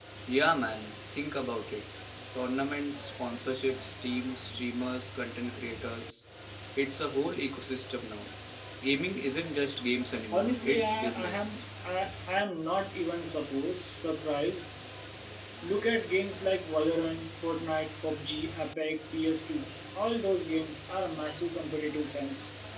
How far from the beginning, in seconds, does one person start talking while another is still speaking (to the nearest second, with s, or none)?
10 s